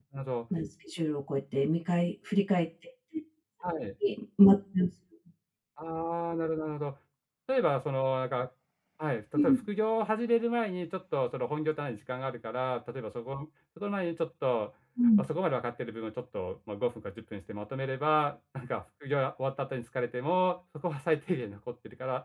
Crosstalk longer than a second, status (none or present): none